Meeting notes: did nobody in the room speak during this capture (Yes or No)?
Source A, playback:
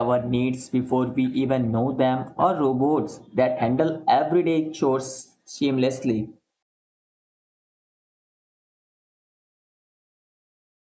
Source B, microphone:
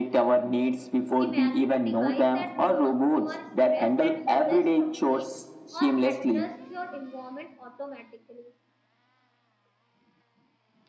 No